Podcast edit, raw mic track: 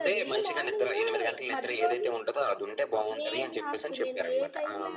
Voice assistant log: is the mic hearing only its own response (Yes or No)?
No